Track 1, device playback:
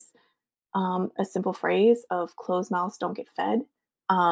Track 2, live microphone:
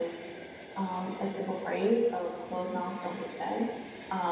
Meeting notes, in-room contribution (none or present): none